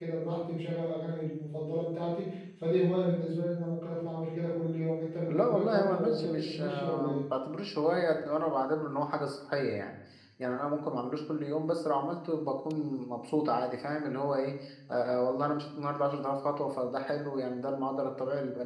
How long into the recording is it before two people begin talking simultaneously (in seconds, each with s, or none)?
5.3 s